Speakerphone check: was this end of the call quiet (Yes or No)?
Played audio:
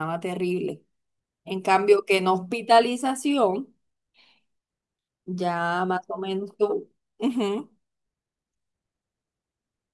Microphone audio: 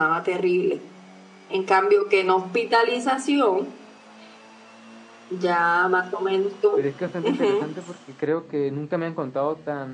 No